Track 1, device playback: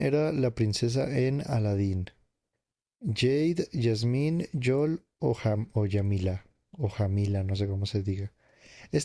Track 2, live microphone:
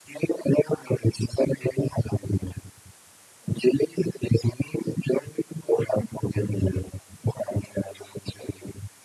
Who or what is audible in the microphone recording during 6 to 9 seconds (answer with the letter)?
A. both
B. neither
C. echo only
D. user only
C